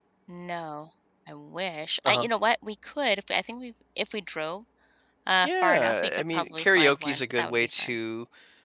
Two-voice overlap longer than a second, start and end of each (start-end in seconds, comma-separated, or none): 5.4-7.9